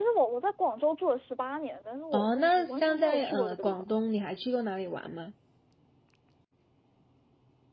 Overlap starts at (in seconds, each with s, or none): 2.1 s